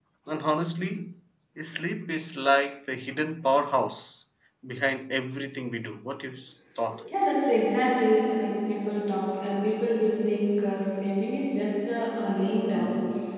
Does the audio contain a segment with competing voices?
No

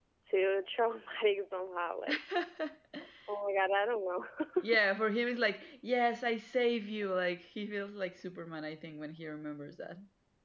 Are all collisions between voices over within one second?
Yes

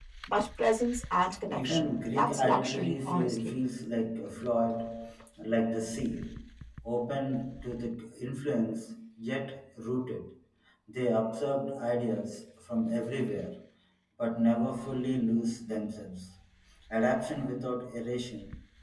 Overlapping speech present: Yes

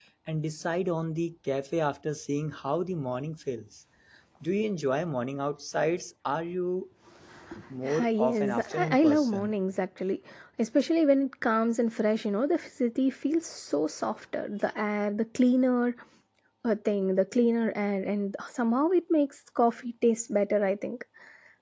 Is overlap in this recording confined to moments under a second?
No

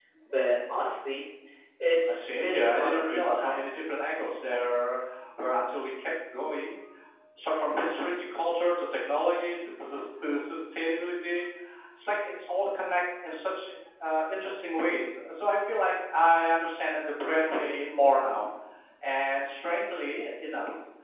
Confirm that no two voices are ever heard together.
No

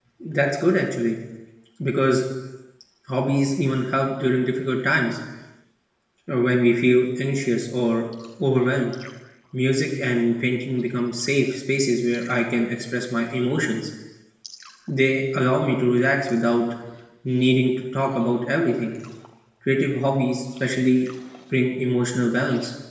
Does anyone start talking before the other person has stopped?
No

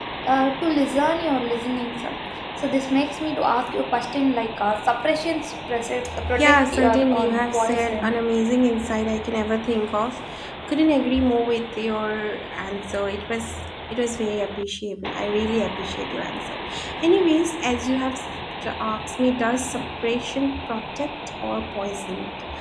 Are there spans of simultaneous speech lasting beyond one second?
Yes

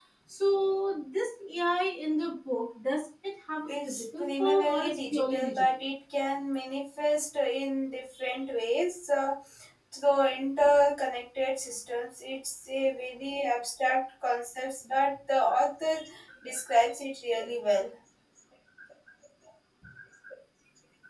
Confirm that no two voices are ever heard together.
No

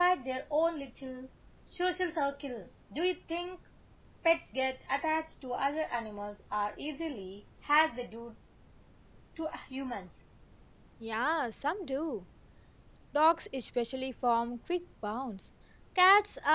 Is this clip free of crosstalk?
Yes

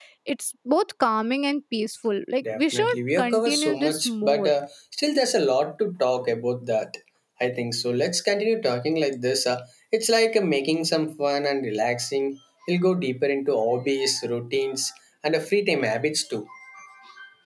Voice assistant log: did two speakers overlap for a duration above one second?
Yes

